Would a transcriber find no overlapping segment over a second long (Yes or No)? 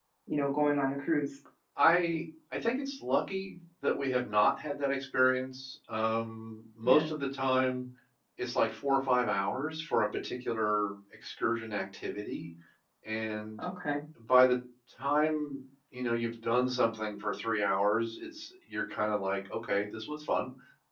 Yes